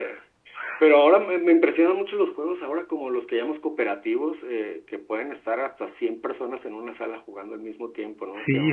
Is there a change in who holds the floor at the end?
Yes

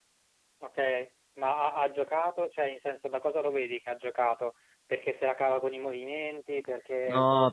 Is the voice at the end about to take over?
Yes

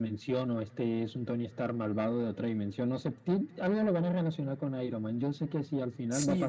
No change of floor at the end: No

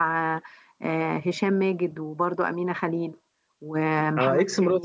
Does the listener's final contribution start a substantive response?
Yes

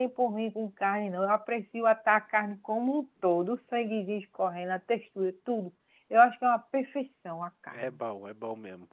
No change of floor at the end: No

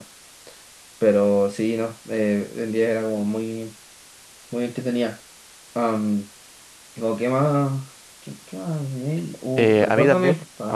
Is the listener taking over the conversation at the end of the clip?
Yes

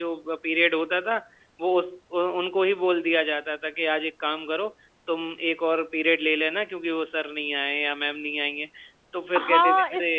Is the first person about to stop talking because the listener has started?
Yes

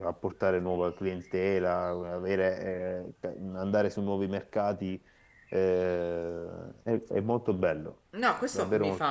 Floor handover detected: Yes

